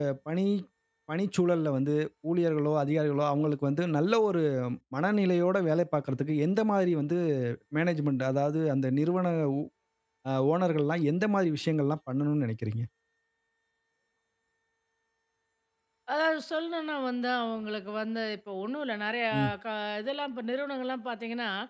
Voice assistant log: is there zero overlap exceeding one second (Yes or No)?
Yes